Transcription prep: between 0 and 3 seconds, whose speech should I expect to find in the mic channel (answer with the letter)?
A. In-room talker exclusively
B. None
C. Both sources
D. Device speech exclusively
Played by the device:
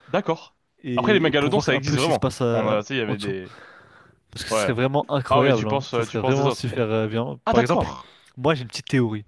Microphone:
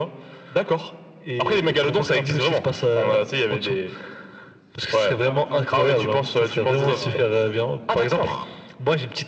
D